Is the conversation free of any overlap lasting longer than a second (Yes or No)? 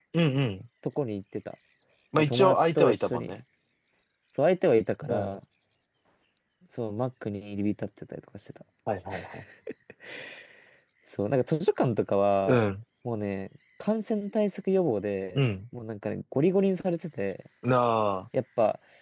No